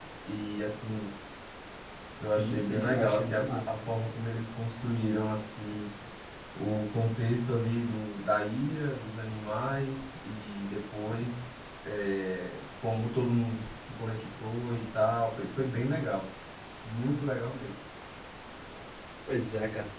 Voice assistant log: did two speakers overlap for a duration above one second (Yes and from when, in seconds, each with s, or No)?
Yes, from 2.4 s